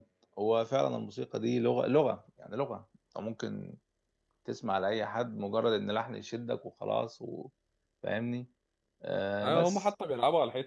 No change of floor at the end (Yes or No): No